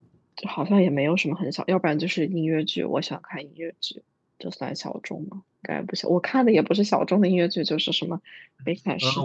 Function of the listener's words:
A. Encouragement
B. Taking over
B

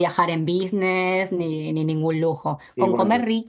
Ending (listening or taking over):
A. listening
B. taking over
A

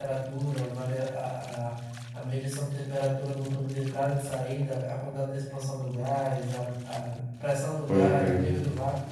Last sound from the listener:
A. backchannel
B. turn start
A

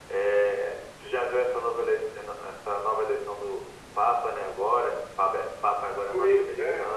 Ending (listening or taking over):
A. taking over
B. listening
A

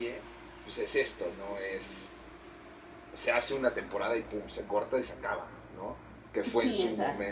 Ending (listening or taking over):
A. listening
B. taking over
A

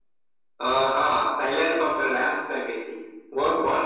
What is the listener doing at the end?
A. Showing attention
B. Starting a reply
B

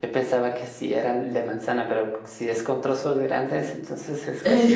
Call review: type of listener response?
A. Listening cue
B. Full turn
B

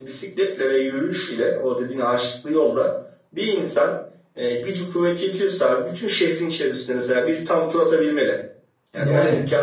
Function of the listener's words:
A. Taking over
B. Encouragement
B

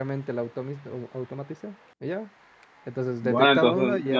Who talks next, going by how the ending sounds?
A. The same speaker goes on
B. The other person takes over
B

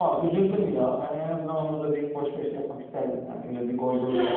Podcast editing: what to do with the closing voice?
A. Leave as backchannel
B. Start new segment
B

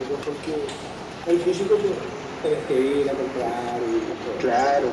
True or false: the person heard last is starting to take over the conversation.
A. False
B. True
B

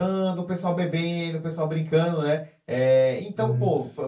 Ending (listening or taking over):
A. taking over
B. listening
B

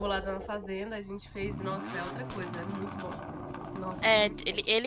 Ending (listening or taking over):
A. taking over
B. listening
A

